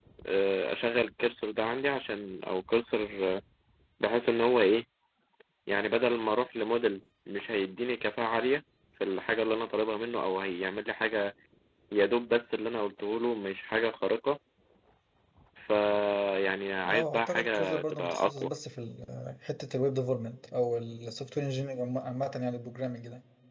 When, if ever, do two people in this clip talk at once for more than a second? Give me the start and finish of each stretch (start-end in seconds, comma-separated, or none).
16.9-18.5